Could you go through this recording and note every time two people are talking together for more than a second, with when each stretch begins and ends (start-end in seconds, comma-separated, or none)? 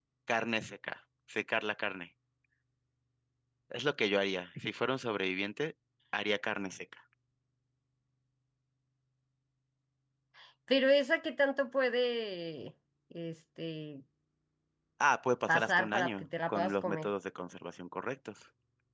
15.5-17.1